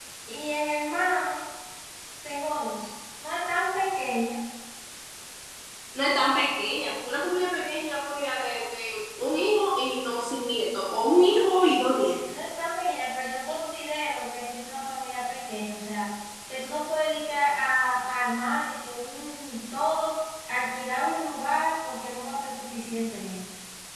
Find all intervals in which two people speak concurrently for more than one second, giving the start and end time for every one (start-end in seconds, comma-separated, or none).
none